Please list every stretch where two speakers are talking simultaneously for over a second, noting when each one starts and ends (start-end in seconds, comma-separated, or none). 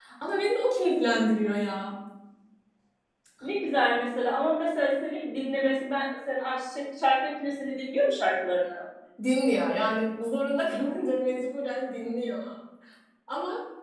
none